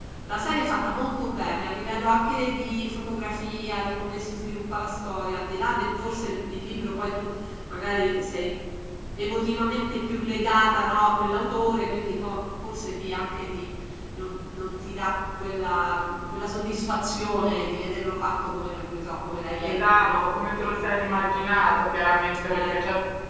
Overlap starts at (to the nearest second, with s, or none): 20 s